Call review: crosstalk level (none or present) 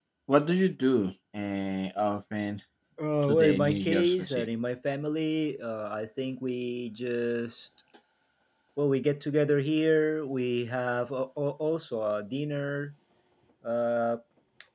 present